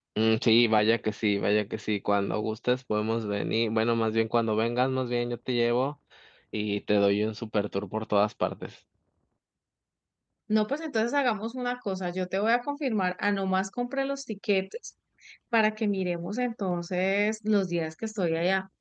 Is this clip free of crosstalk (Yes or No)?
Yes